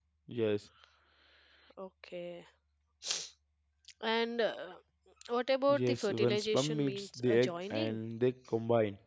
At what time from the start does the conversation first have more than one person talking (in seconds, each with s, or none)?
5.7 s